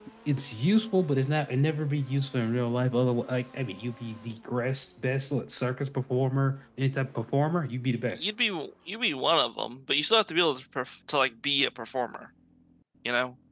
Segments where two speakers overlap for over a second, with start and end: none

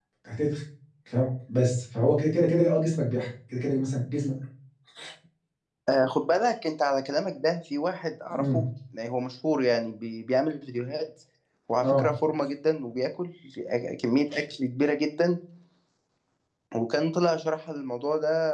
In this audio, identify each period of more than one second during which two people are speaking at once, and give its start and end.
none

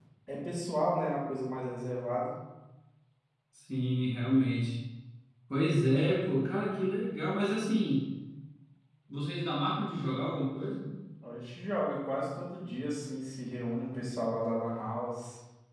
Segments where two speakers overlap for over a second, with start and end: none

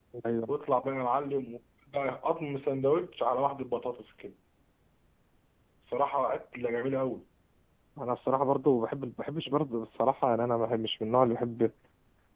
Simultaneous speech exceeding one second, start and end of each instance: none

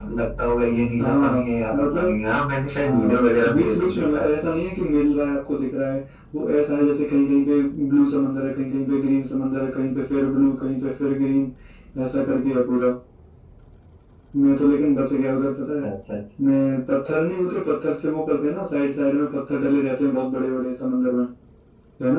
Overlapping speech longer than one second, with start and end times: 2.8-4.3

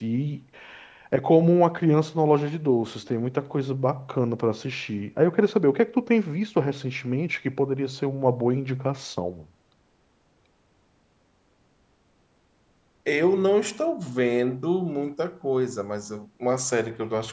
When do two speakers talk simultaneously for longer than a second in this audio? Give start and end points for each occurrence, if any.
none

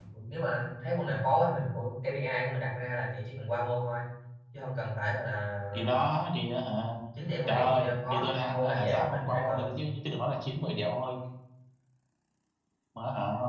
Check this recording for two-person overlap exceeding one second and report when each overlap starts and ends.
7.5-9.8

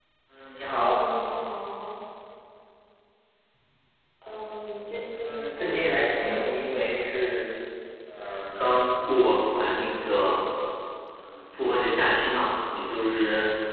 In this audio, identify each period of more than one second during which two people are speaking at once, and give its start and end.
5.2-6.5

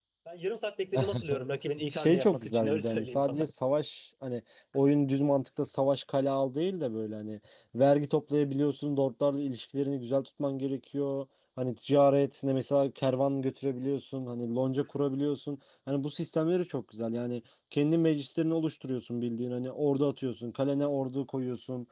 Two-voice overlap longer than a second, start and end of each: 1.9-3.5

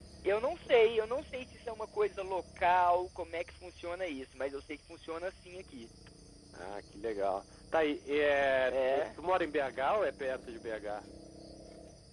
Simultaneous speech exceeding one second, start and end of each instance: none

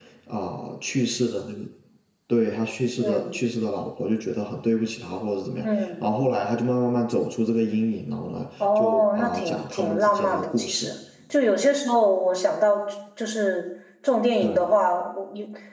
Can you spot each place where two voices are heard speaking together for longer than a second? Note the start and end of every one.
8.6-10.9

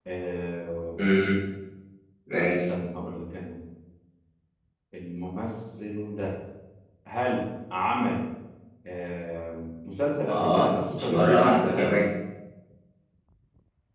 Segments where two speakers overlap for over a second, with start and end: 10.2-11.9

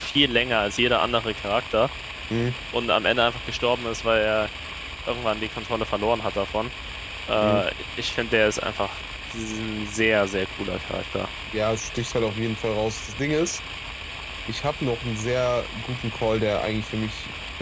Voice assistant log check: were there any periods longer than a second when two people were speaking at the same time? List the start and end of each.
none

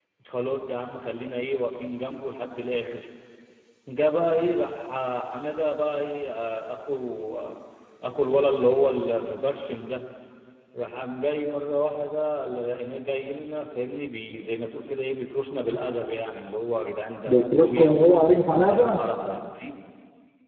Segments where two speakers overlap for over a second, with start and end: 17.3-19.0

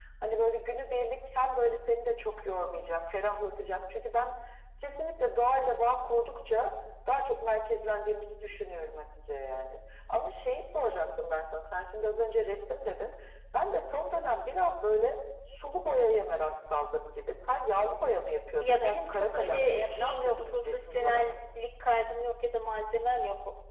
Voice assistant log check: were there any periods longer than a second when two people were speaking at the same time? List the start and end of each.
18.6-21.2

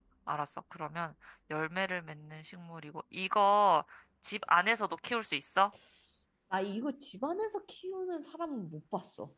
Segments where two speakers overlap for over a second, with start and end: none

